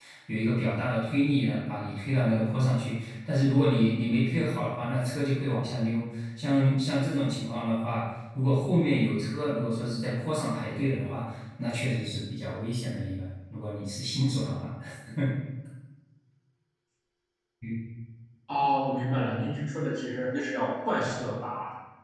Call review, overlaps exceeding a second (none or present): none